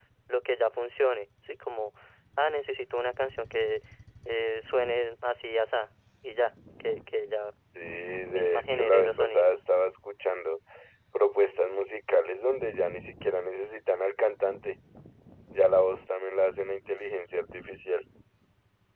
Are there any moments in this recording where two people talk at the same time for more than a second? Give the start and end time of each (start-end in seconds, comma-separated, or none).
8.3-9.6